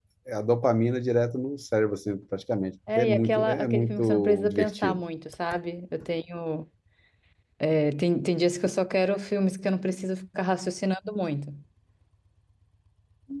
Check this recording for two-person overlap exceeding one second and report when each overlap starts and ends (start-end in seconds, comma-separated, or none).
2.9-5.0